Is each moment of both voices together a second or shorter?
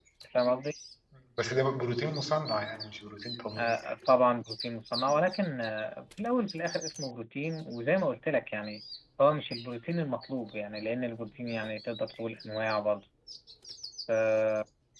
Yes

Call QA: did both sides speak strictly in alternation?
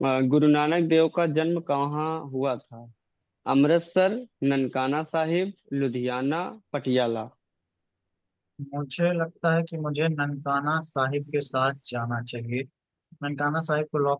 Yes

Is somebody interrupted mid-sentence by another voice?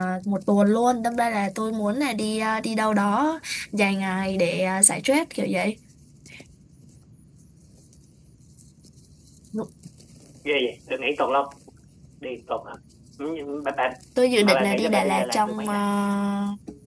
Yes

